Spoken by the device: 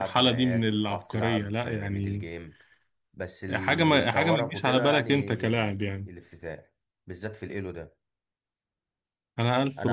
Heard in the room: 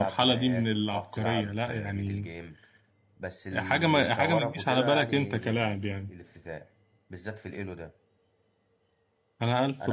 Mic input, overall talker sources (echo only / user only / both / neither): echo only